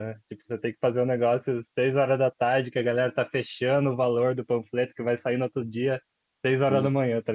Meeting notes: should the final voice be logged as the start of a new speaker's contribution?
No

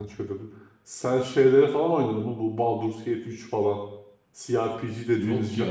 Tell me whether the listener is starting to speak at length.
No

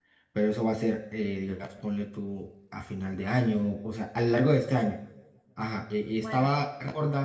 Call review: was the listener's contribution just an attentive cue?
Yes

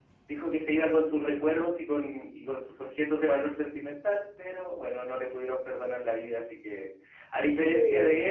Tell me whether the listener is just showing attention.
Yes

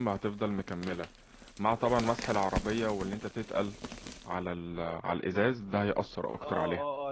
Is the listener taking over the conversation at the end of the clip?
Yes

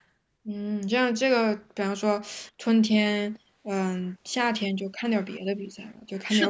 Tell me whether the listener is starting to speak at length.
Yes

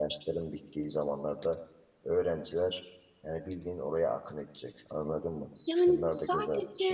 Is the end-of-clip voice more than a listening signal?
Yes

